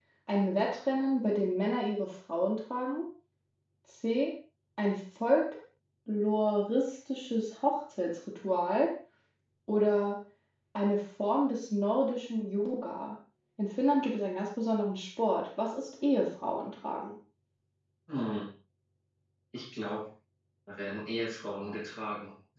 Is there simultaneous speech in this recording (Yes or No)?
No